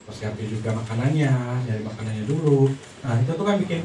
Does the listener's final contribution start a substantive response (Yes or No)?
No